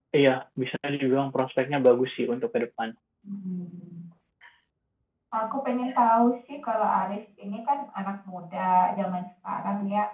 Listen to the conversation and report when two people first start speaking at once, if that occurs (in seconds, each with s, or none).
none